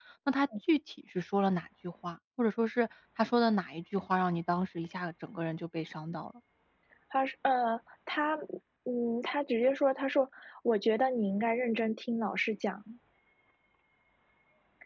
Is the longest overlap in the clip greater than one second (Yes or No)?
No